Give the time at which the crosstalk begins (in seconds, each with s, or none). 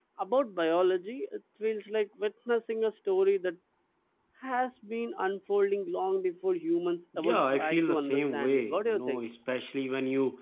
7.1 s